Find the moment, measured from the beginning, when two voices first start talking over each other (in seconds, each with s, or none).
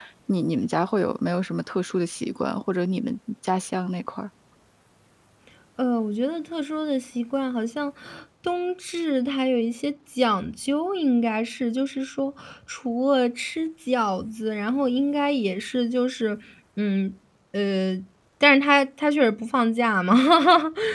none